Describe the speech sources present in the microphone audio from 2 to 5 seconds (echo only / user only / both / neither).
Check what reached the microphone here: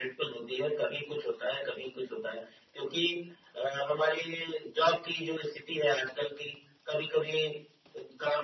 echo only